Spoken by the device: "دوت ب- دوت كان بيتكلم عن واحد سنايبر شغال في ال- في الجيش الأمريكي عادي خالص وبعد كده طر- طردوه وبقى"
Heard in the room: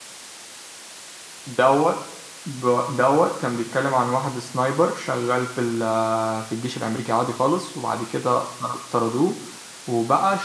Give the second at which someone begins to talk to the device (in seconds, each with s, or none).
none